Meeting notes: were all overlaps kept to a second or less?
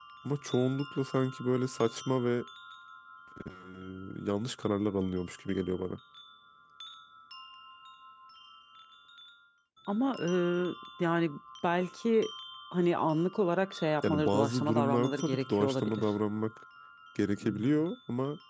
No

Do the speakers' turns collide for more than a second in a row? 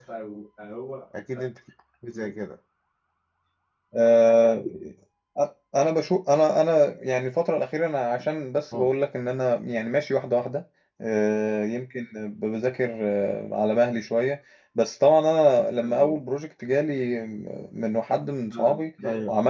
No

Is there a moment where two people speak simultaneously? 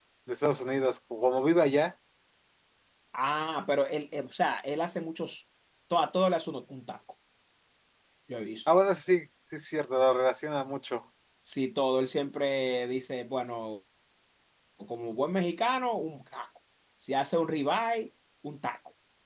No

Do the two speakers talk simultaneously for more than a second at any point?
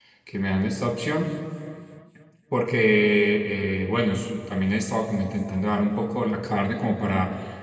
No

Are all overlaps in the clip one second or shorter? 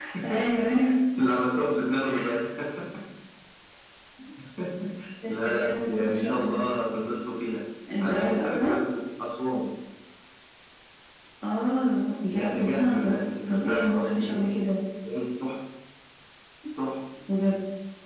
No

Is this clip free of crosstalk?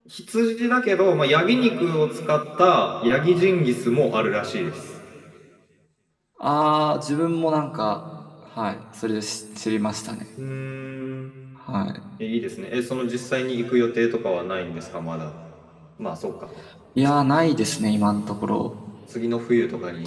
Yes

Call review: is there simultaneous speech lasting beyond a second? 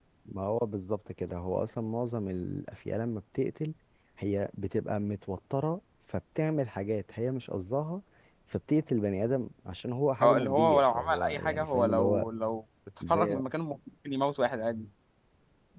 Yes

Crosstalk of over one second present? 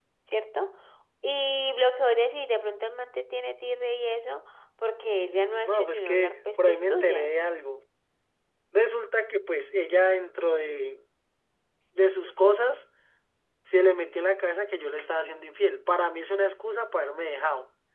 Yes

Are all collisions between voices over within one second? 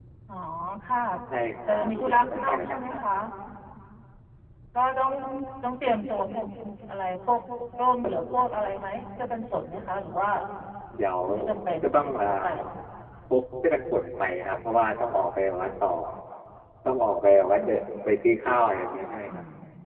No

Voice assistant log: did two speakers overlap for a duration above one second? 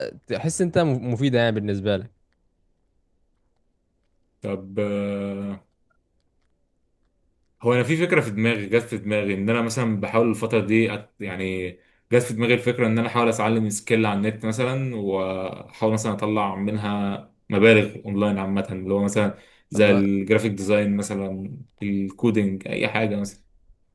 No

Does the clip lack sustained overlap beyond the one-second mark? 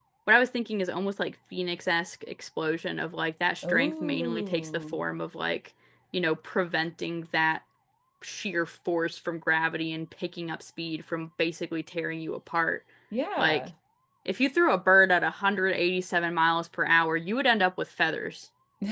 No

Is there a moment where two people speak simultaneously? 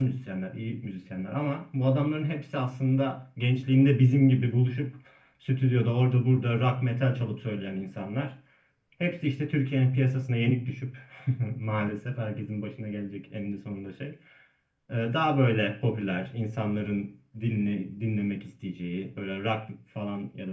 No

